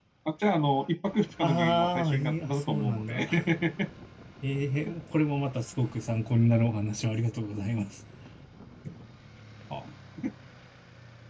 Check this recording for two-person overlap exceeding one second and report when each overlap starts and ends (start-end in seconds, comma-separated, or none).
1.4-3.3